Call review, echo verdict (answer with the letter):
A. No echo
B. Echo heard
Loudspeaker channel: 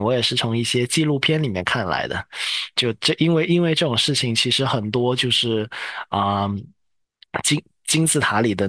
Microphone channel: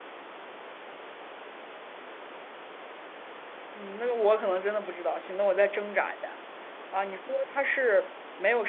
A